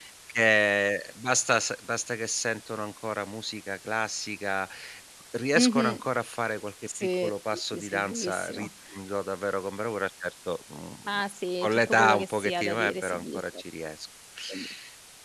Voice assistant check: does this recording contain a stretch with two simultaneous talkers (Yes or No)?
Yes